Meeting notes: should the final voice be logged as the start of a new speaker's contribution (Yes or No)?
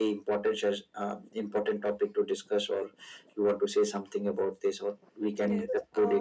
Yes